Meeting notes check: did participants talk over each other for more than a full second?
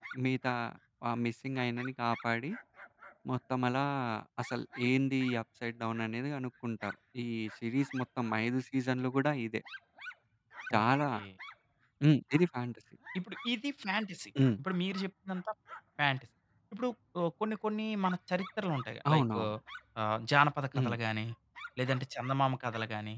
No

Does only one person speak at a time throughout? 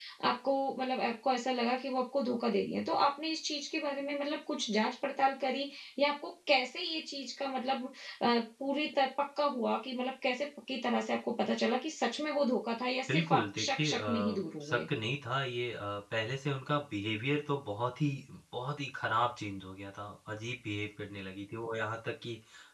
No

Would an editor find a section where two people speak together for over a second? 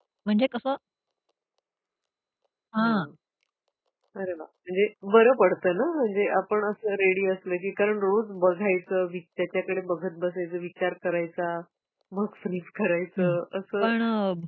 No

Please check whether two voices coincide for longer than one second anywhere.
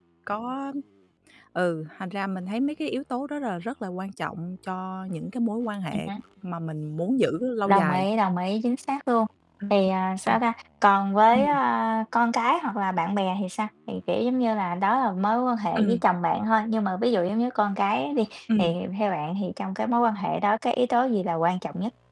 No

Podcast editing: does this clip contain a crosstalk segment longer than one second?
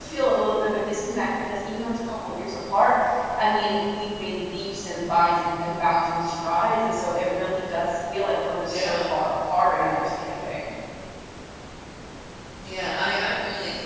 No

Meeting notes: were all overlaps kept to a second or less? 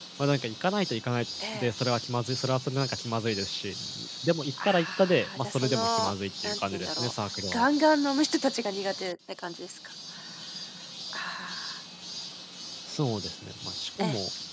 No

